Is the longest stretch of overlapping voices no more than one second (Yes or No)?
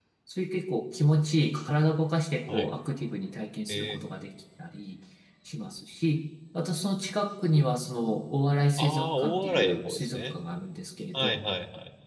No